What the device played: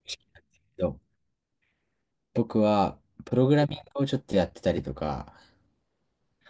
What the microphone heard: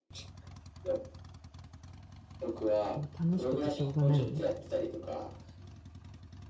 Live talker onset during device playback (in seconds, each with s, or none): 2.9 s